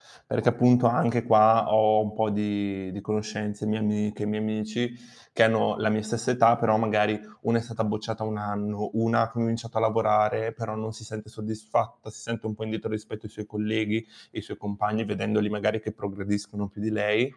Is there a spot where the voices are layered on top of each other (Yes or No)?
No